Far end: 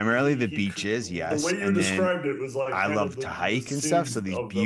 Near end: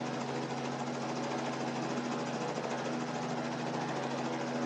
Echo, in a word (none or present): none